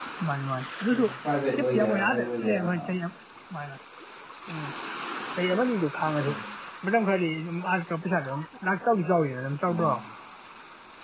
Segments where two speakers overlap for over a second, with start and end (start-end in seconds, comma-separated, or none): 1.5-2.9